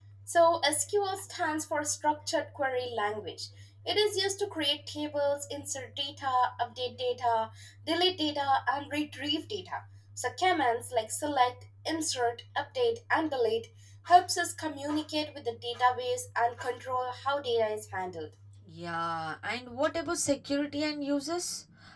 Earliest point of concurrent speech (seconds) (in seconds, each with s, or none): none